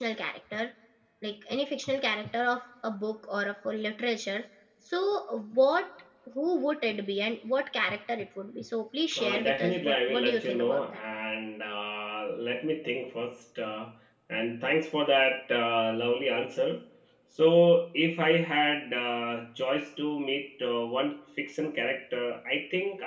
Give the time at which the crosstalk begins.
9.1 s

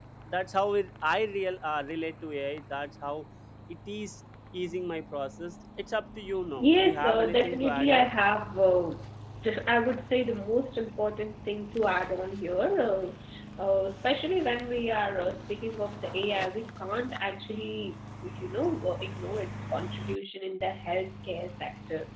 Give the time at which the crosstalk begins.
6.6 s

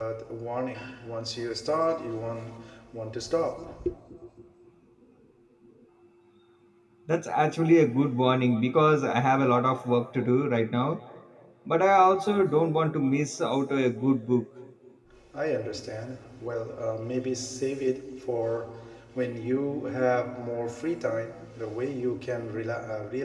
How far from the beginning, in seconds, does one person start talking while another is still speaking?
none

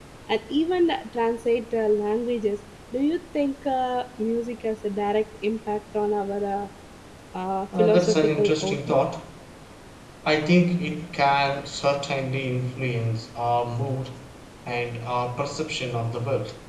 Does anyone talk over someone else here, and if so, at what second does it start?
7.8 s

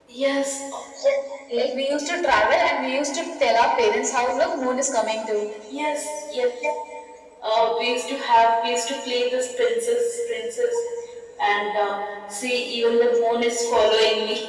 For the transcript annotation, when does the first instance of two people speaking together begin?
none

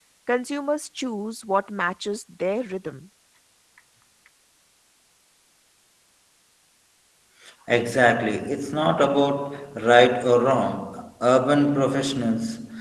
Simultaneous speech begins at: none

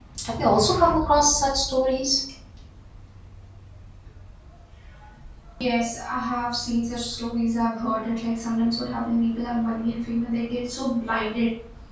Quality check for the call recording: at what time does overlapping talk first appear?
none

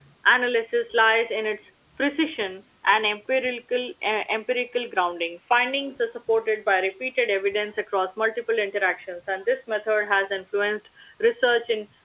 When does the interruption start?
none

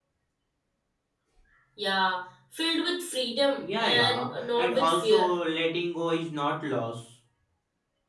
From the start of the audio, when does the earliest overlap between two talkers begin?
3.6 s

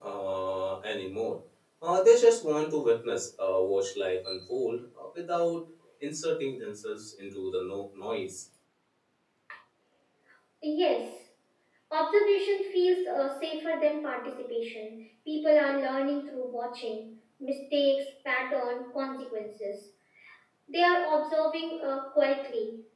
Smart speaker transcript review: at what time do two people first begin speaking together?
none

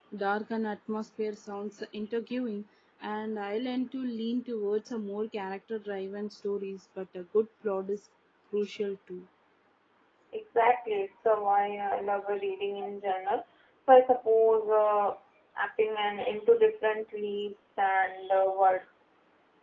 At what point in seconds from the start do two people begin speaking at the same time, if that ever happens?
none

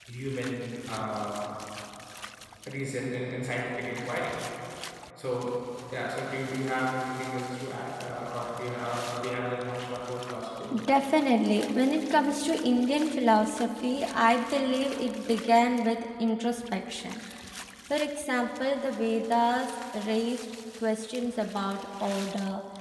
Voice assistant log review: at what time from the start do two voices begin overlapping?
none

